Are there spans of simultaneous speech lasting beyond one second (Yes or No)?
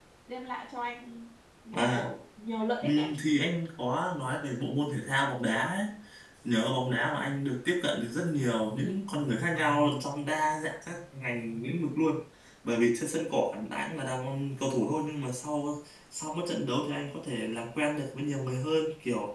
No